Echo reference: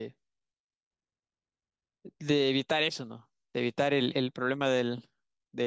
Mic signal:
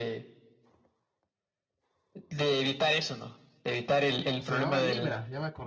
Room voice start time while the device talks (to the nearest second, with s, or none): 4 s